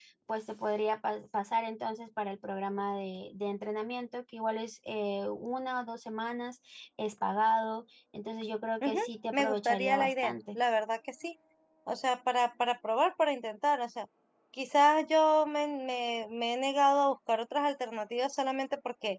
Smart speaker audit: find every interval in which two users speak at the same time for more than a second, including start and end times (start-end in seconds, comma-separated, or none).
8.8-10.6